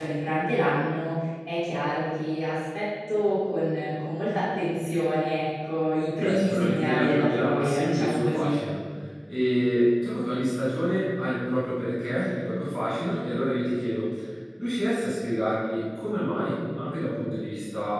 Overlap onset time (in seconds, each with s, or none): 6.2 s